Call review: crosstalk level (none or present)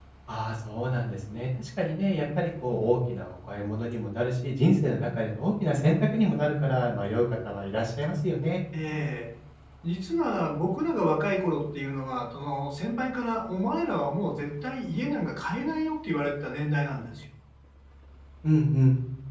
none